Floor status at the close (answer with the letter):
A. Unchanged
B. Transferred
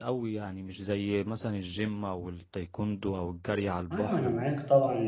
B